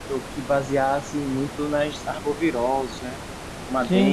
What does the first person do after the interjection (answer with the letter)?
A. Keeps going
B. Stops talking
B